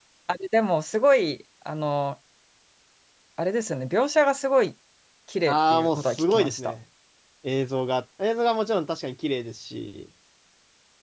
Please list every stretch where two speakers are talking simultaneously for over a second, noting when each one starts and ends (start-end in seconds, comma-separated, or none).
5.5-6.7